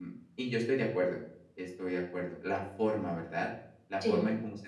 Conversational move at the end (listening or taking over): listening